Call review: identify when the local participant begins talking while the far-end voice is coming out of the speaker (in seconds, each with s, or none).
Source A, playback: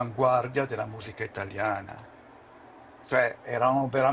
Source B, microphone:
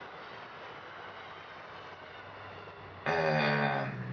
3.0 s